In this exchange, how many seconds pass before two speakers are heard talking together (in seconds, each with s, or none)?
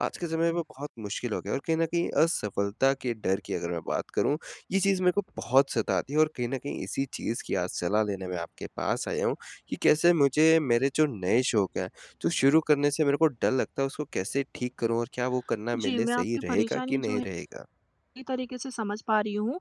15.7 s